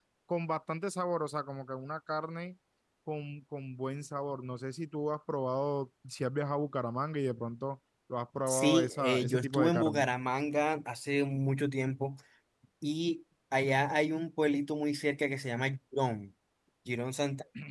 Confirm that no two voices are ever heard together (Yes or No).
No